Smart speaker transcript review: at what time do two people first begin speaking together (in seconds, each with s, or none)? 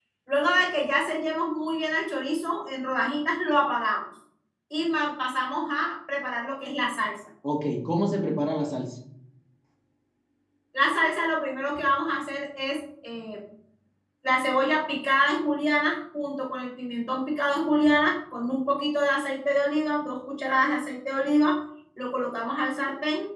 none